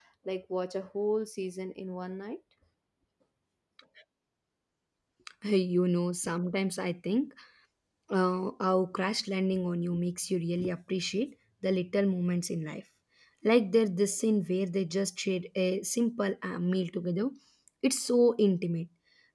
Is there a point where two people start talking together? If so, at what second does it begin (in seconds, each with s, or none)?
none